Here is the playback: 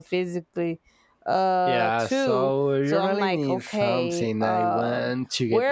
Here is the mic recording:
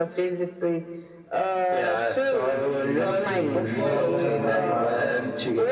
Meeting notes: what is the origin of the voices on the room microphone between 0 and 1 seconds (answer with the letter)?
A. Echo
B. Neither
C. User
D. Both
A